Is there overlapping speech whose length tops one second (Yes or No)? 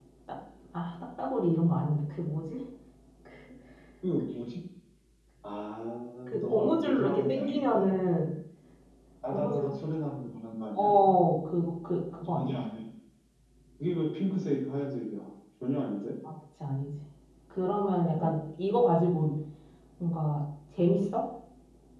Yes